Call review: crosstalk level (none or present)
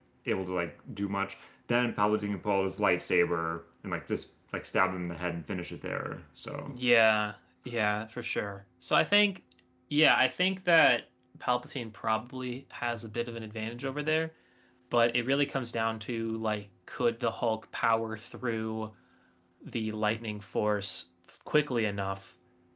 none